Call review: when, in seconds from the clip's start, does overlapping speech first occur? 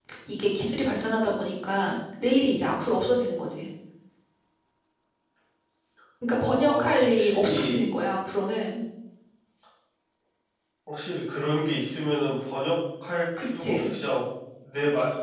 6.3 s

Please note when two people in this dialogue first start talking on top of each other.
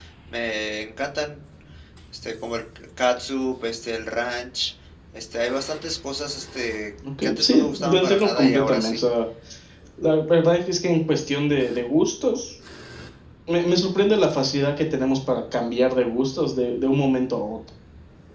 7.0 s

